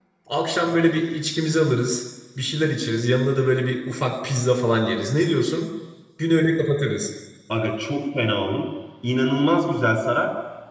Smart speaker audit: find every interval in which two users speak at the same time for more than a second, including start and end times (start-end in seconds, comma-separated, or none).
none